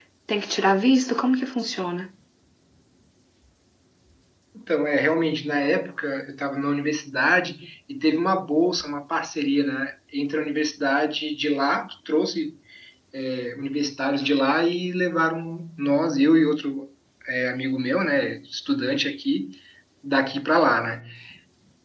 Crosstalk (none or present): none